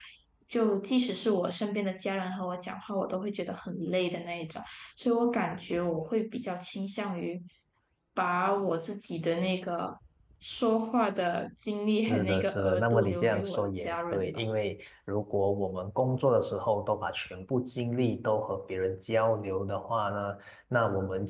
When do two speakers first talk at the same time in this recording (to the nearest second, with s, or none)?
12 s